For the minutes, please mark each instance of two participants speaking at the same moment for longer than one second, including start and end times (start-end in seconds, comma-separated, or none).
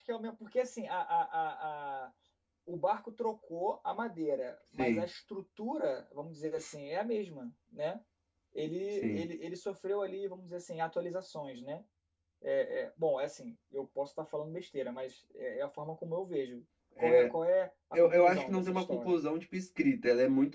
17.9-19.2